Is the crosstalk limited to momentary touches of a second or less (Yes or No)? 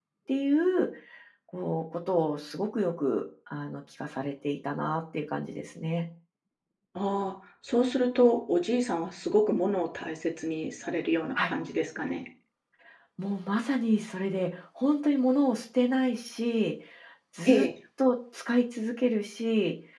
Yes